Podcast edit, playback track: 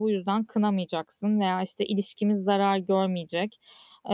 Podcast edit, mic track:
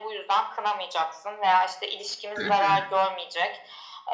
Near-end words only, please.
Hı hı.

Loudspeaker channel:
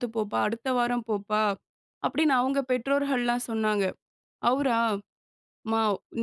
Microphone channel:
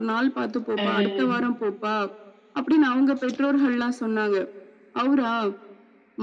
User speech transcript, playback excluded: அ.

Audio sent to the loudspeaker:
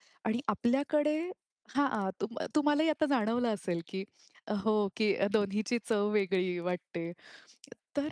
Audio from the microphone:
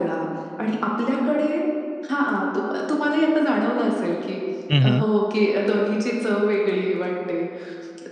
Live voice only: हं, हं.

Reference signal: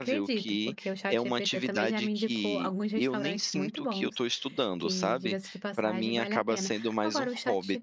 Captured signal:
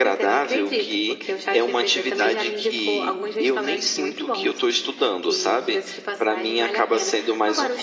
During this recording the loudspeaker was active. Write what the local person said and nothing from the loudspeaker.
none

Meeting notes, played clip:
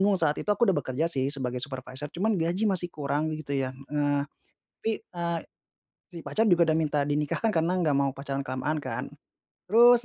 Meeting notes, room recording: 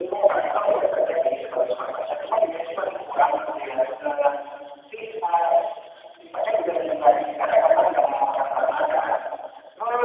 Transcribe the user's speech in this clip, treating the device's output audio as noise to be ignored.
none

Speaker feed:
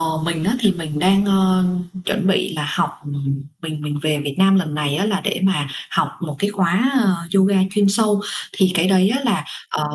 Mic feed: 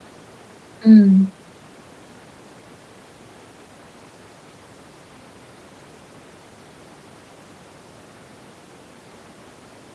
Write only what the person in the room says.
Ừm.

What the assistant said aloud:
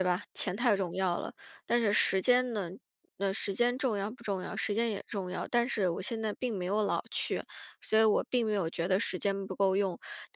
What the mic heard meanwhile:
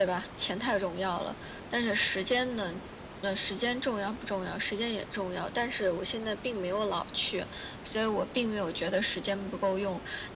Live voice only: none

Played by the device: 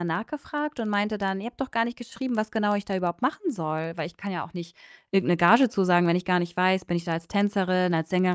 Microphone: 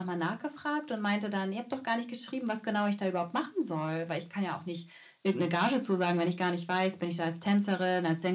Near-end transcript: none

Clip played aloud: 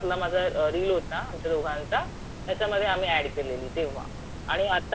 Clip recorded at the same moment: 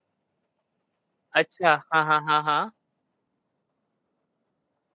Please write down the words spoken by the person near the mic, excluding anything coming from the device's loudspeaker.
अच्छा. हां, हां, हां, हां.

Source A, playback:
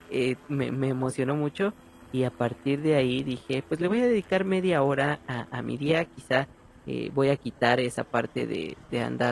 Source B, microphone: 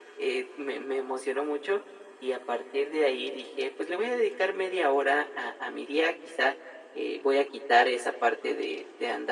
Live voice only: none

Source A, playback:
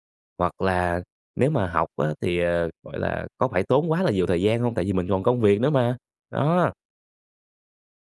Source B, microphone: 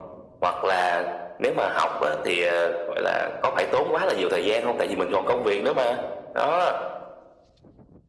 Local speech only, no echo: none

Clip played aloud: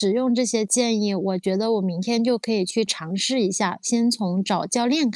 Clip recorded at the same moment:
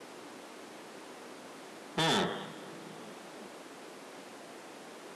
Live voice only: 嗯。

